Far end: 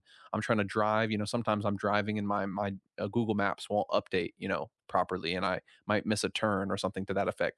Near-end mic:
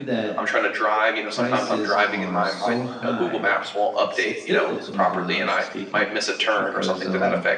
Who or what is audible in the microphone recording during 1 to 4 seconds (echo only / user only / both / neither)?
both